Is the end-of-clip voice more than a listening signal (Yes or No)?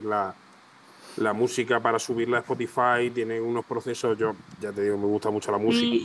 Yes